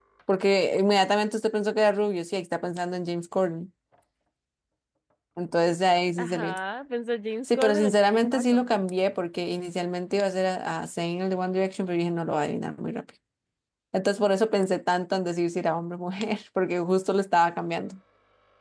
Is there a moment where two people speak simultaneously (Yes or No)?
Yes